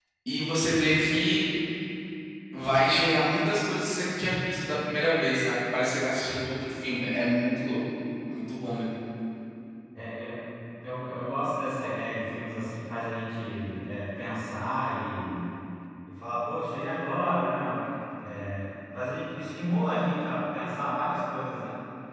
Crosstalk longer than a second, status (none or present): none